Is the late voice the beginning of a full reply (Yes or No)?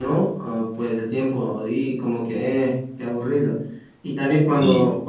No